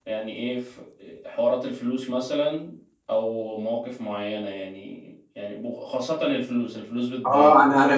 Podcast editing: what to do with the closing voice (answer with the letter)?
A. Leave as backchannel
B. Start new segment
B